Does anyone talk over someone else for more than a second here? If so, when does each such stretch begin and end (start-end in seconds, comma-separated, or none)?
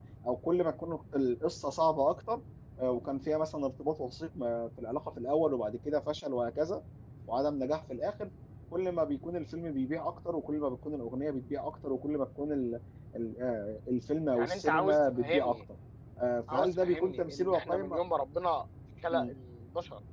14.3-15.6, 16.5-17.8